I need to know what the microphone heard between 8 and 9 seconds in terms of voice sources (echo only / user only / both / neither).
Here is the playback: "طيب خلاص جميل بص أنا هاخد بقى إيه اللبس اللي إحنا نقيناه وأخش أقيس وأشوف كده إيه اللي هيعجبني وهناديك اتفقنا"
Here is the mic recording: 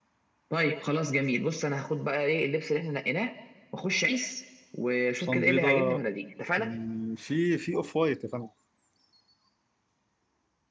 user only